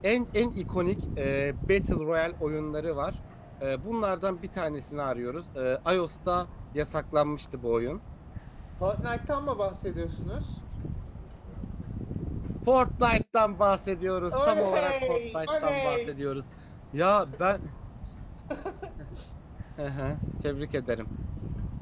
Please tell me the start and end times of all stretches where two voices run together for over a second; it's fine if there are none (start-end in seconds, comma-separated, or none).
14.3-16.1